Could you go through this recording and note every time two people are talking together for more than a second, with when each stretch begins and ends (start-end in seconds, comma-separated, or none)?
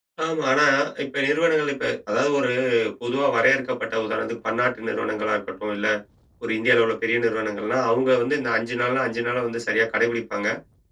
none